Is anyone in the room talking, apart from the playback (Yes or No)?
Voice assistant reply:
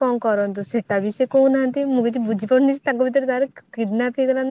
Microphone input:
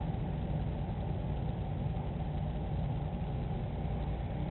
No